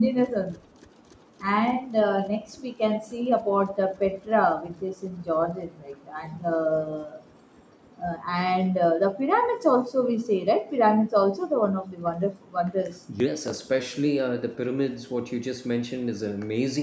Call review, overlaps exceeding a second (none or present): none